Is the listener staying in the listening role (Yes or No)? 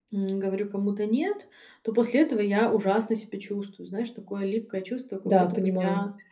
Yes